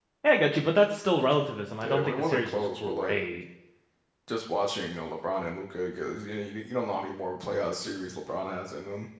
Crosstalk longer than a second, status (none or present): present